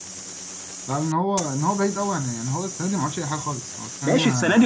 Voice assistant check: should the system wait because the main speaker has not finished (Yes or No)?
No